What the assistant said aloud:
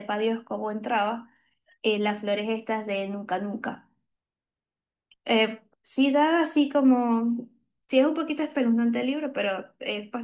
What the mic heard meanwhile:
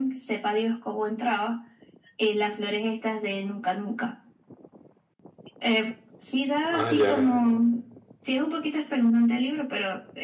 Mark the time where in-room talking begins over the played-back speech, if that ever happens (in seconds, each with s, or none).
6.7 s